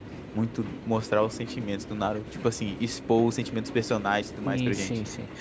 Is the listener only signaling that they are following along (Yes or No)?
No